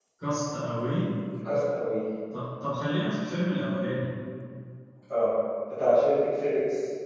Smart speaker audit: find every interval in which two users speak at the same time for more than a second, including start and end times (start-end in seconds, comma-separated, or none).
none